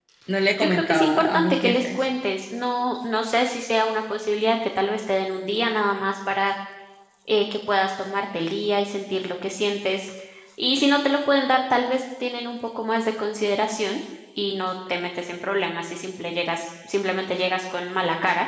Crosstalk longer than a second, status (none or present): present